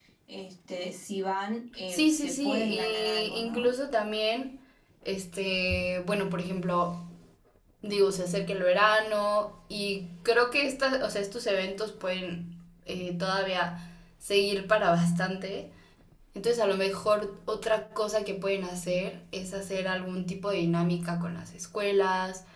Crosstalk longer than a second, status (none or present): present